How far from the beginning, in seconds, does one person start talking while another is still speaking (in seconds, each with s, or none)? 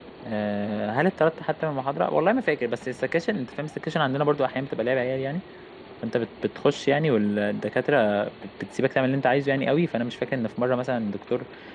none